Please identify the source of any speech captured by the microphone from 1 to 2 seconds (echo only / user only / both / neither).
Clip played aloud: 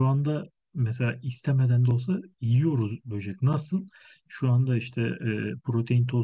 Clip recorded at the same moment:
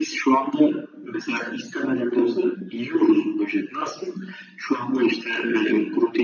echo only